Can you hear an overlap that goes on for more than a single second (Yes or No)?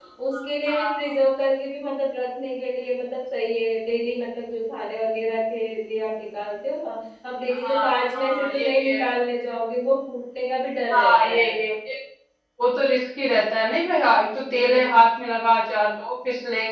Yes